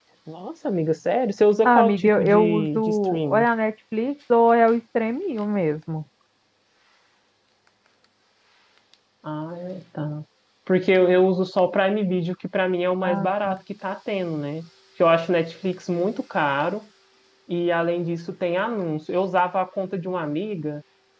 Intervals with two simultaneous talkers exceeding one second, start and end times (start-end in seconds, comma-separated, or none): 1.6-3.5